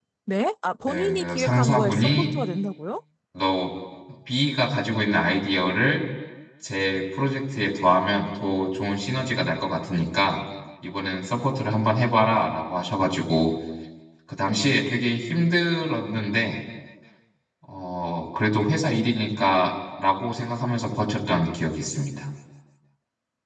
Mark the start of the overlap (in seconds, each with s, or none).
0.9 s